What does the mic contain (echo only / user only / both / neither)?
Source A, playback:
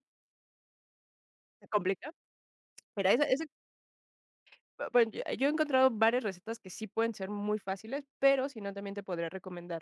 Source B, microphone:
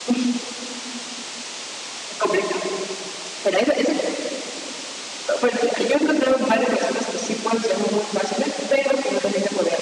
echo only